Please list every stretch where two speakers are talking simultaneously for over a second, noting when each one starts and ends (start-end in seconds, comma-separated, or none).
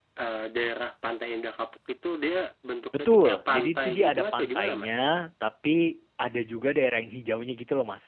3.0-4.9